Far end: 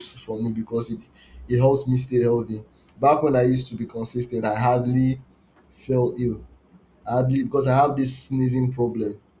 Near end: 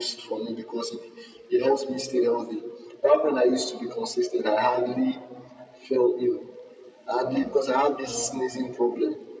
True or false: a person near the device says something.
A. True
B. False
A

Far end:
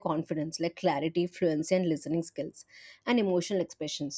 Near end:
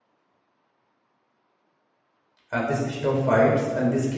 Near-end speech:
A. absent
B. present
B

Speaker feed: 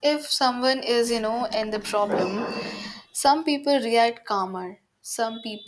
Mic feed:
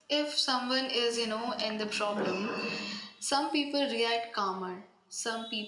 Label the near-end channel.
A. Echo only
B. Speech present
A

